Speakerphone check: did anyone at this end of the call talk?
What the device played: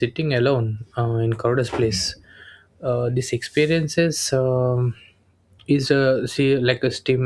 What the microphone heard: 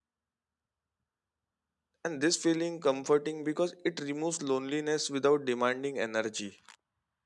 Yes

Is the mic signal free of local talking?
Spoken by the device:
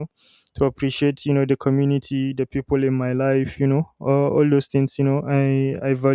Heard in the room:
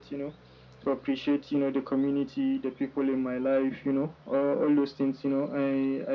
Yes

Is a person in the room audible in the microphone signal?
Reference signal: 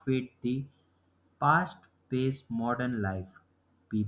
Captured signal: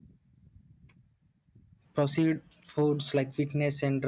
Yes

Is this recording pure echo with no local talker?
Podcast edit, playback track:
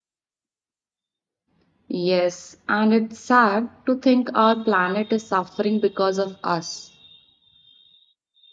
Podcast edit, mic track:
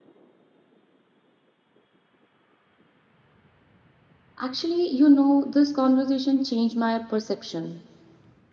No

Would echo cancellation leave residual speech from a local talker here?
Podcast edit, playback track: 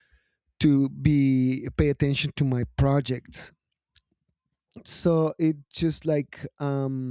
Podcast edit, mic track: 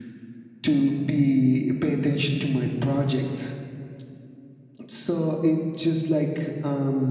No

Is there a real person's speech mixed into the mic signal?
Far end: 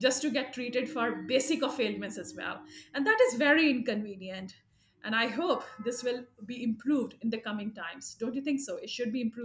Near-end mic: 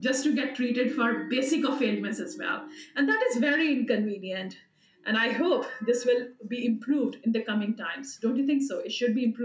No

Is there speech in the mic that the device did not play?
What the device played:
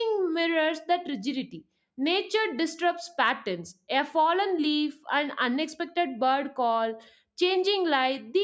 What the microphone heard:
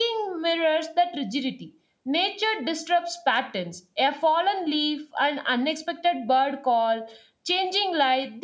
No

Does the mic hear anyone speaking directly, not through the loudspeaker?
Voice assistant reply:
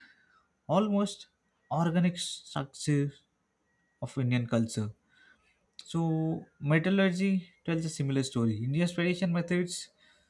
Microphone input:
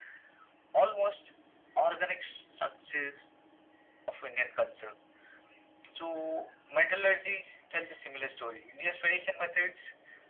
No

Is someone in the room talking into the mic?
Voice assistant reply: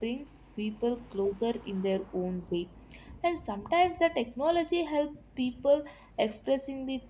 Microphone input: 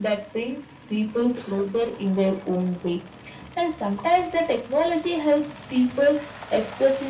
No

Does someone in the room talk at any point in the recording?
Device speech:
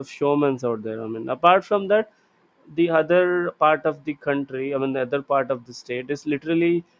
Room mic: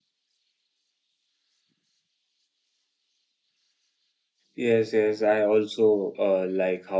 Yes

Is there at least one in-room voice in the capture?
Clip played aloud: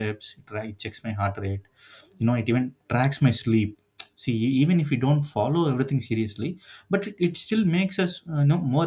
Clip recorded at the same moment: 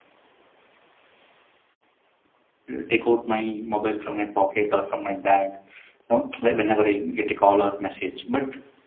Yes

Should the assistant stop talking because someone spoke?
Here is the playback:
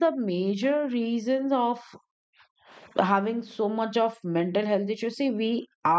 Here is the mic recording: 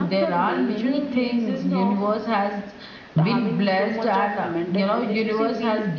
Yes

